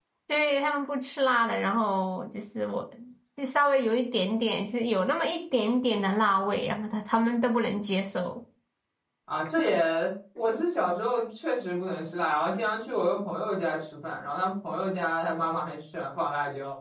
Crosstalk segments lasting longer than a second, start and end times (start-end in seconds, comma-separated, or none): none